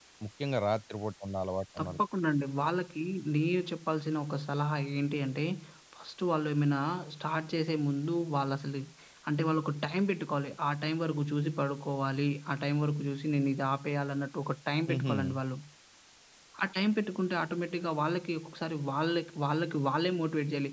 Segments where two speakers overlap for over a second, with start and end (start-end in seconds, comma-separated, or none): none